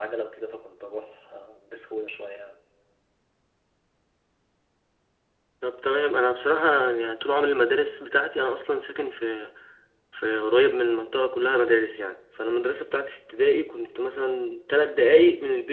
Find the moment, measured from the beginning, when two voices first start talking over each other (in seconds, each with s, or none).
none